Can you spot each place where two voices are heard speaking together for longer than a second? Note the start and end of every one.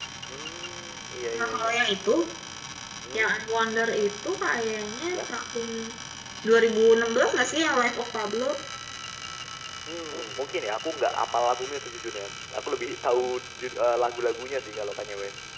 none

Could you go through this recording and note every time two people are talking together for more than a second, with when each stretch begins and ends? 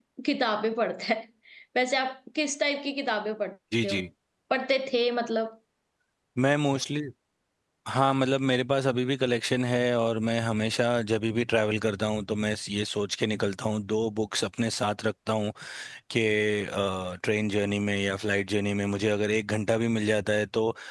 none

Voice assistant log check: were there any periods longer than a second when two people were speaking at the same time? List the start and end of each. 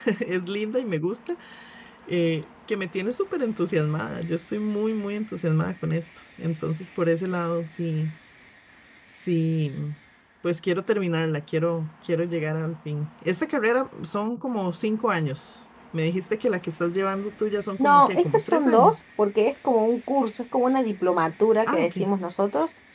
17.8-19.0

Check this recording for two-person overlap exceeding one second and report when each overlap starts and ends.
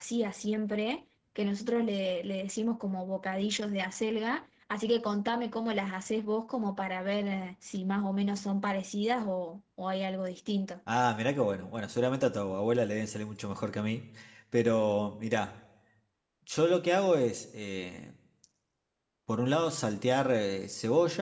none

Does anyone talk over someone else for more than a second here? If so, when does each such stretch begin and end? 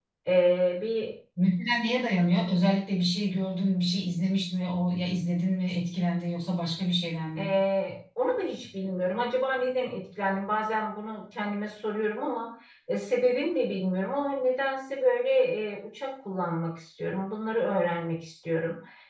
none

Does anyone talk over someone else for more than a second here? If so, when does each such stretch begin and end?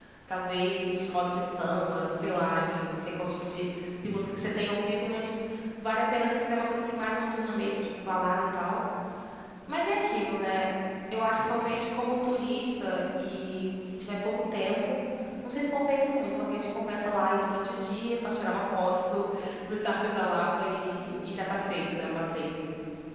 none

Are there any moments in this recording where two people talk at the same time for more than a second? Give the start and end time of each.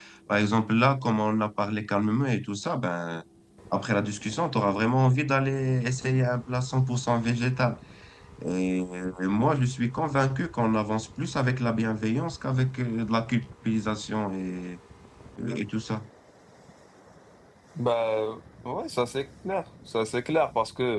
none

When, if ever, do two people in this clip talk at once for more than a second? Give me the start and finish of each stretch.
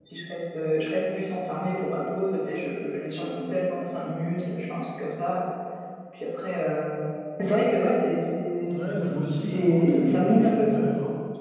9.4-10.8

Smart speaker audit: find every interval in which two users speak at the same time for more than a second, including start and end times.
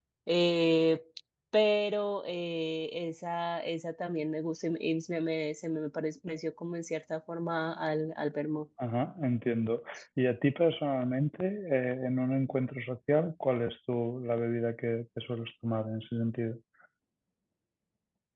none

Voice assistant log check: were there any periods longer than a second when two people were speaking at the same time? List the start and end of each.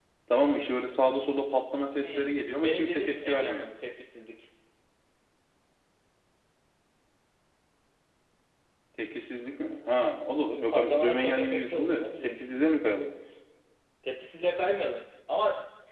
2.0-3.6, 10.7-12.4

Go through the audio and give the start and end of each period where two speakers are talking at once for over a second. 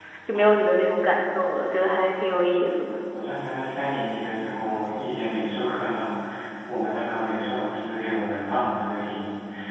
none

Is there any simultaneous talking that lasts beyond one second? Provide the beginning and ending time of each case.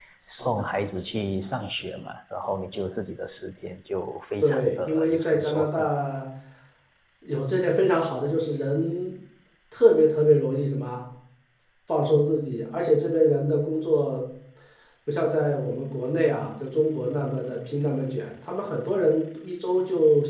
4.4-5.9

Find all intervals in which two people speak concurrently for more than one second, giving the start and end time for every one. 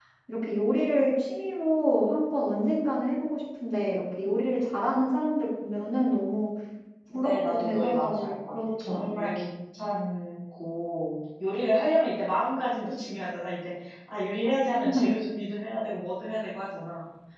7.1-9.4

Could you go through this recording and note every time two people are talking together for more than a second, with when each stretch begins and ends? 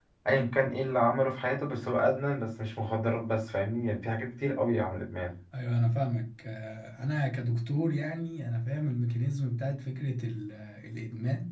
none

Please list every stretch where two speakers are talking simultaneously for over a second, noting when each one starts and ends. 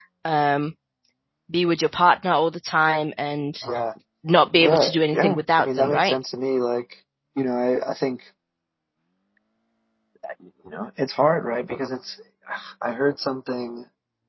4.6-6.1

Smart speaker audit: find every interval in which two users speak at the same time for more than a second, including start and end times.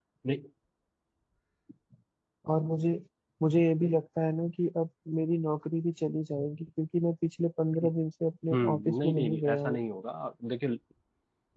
8.5-9.8

